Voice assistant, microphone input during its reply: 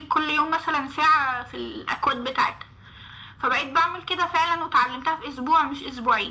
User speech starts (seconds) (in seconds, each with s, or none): none